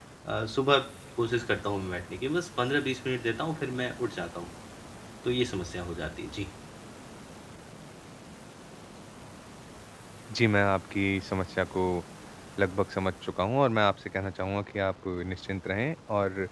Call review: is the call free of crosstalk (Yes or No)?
Yes